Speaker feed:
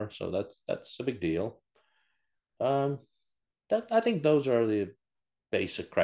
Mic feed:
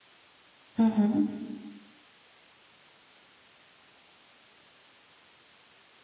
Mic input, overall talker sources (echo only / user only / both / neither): user only